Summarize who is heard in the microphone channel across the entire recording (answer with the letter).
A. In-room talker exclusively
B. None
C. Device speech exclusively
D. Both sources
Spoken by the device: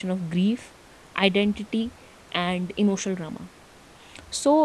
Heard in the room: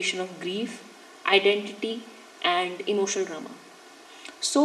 C